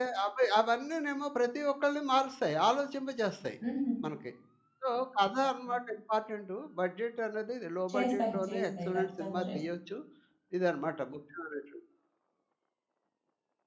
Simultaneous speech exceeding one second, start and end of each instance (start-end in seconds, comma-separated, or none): 7.9-9.6